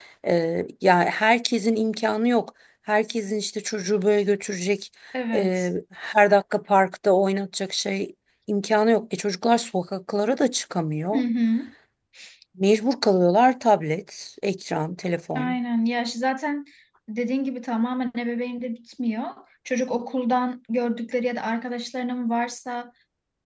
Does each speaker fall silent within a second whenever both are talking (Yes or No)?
Yes